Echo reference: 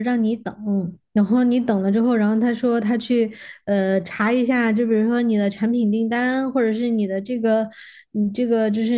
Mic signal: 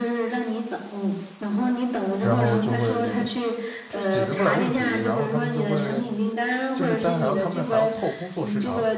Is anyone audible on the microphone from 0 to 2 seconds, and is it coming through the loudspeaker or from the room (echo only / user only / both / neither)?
echo only